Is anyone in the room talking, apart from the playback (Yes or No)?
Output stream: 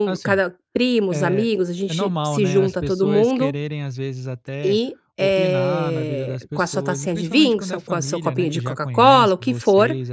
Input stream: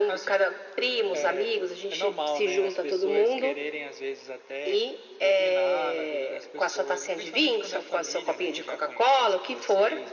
No